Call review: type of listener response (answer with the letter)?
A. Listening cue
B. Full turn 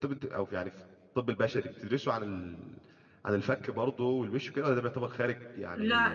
B